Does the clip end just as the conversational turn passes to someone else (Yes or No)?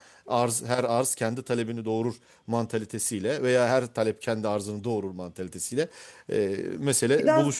Yes